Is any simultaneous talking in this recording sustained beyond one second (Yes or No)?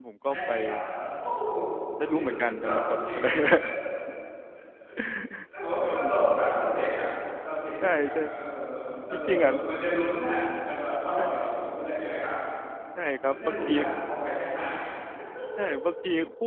Yes